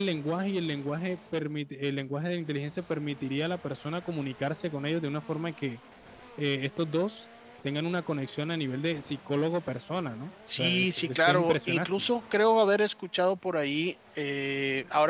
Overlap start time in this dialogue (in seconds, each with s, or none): 10.5 s